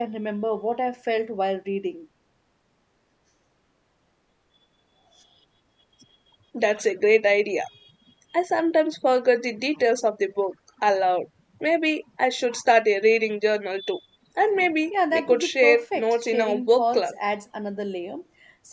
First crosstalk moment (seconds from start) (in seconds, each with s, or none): 14.9 s